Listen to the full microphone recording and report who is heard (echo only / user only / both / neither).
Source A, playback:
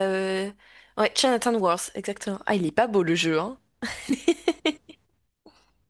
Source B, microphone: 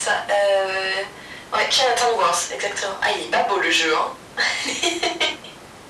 echo only